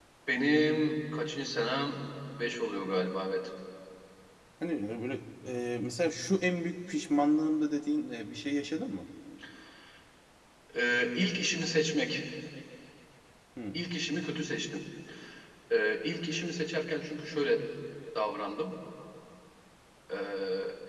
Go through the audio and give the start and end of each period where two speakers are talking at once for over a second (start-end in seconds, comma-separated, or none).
none